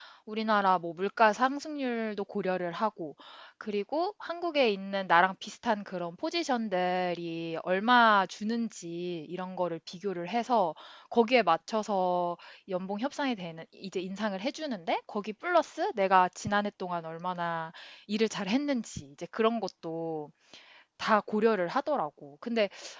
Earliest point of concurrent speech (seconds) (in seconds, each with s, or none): none